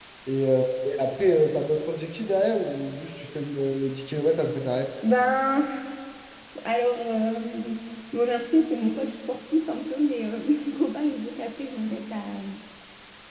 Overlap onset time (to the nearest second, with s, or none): none